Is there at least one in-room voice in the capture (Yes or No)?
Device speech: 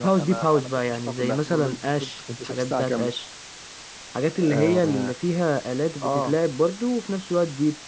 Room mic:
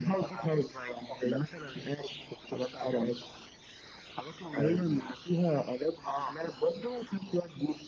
No